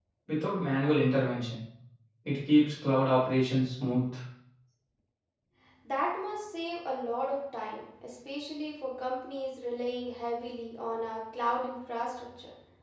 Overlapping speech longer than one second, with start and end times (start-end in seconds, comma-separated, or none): none